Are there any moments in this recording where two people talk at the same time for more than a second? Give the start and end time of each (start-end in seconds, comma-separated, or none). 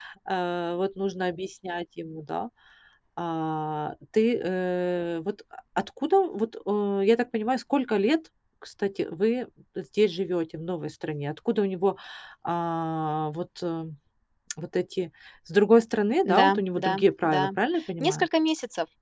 16.2-17.5